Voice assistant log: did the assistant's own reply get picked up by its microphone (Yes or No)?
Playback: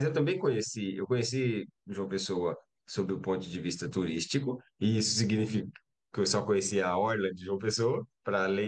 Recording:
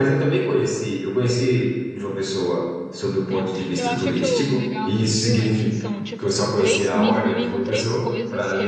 Yes